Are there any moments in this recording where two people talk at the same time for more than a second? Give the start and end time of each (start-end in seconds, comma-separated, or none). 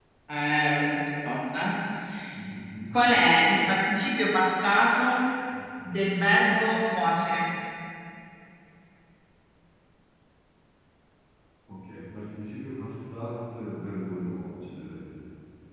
none